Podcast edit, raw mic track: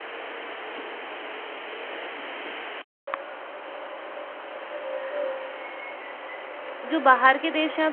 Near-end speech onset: 6.9 s

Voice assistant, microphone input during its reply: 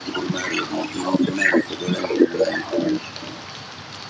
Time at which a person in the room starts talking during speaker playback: none

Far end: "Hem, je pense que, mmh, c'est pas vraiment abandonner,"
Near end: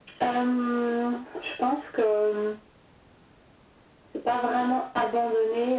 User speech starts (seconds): none

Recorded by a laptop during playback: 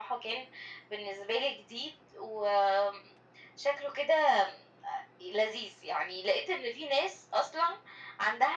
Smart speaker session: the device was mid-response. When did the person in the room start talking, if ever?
none

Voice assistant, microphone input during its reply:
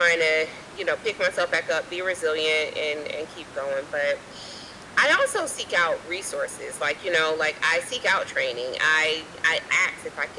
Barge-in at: none

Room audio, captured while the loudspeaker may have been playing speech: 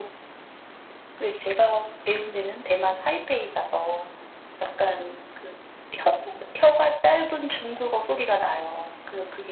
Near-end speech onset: none

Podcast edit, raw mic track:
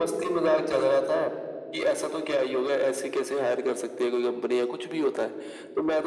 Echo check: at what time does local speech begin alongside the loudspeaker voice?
none

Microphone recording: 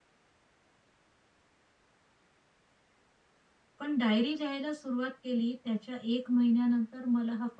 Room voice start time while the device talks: 3.8 s

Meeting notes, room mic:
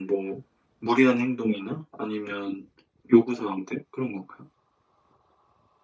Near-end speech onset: none

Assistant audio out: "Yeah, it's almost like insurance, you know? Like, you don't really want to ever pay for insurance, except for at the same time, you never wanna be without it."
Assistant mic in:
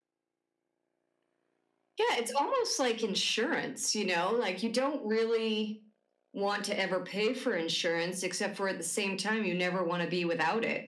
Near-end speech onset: none

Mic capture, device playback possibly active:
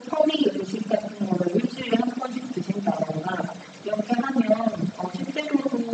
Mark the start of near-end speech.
none

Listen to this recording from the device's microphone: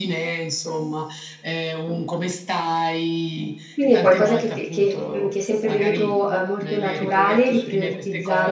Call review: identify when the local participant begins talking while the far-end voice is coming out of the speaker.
3.7 s

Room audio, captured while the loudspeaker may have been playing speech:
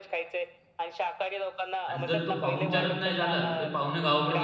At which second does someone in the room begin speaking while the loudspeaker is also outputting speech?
1.9 s

